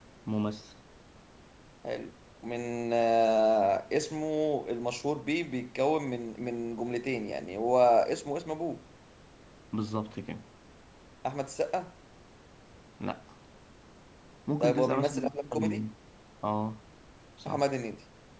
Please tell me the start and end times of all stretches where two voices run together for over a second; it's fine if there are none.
14.6-15.8

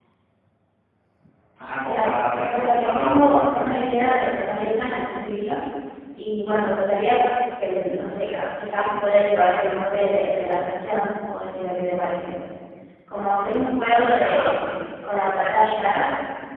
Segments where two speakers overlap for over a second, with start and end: 1.8-3.8

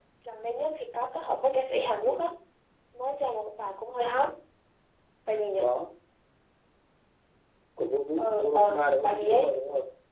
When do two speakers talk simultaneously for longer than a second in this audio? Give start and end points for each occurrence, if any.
8.2-9.5

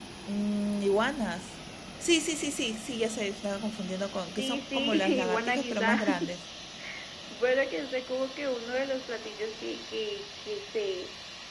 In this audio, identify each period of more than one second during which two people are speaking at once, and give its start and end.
4.4-6.0

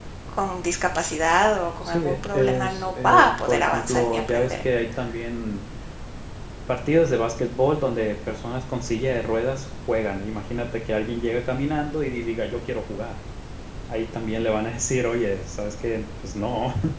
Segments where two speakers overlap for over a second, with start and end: 1.8-4.6

